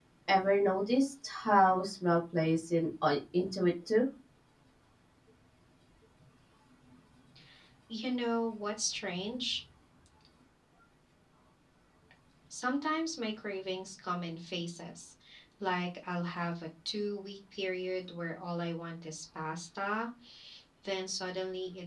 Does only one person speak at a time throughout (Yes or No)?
Yes